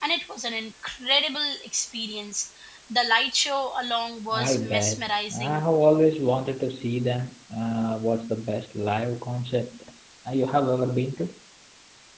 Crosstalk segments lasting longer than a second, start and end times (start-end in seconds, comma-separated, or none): 4.3-5.6